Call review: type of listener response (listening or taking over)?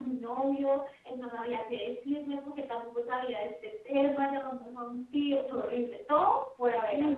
taking over